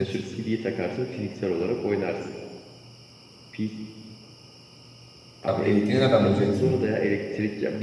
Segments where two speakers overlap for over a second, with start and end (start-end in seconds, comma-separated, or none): 5.4-6.7